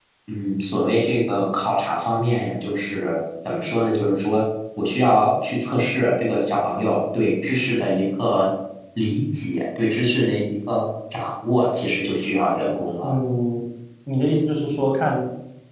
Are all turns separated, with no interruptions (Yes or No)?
Yes